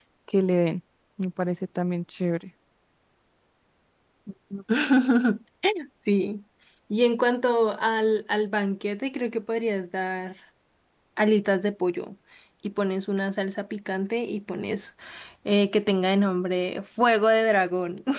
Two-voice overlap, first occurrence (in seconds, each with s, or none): none